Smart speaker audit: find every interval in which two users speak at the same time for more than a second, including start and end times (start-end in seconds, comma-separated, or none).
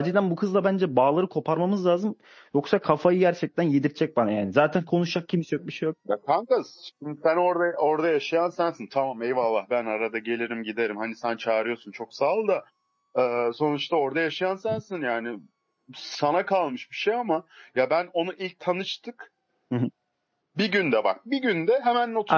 none